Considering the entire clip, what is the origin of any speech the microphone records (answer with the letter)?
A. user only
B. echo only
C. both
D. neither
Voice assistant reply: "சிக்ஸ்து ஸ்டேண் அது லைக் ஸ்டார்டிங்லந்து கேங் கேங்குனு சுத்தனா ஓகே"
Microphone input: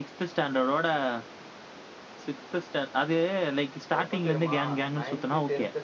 C